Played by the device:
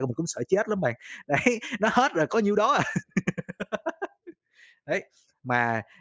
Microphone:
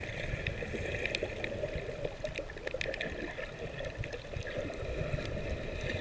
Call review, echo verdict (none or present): none